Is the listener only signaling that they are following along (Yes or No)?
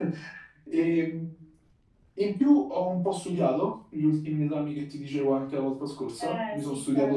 No